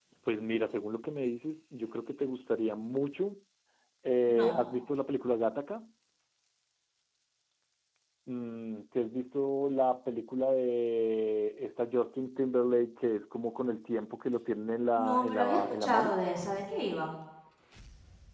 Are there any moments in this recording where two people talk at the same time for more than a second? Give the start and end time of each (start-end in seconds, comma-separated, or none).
14.9-16.2